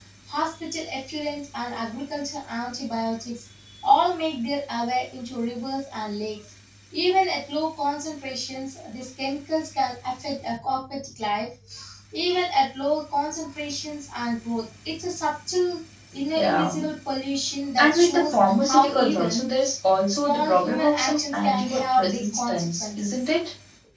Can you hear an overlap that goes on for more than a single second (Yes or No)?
Yes